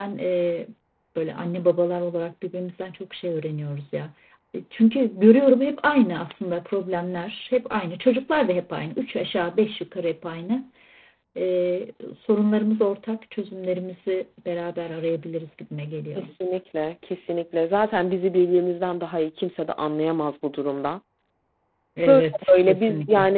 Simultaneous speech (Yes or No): Yes